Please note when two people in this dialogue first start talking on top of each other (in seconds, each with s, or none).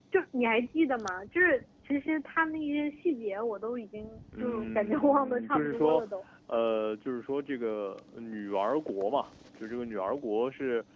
4.3 s